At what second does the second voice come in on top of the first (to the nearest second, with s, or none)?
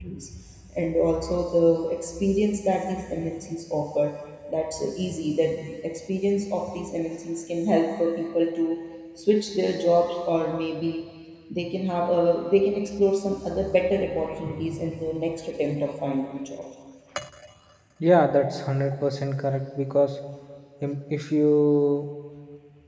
none